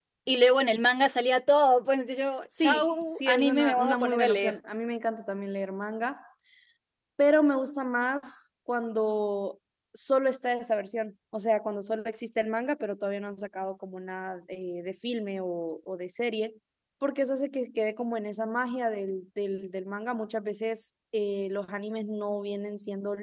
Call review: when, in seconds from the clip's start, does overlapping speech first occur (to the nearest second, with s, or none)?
3 s